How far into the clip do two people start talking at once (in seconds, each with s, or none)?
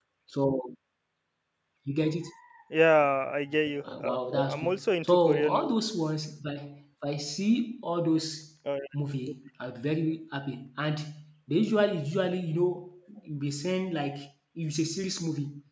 3.8 s